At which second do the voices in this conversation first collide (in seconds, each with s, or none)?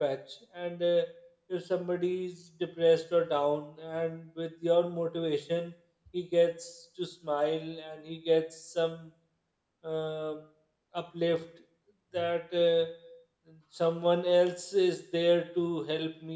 none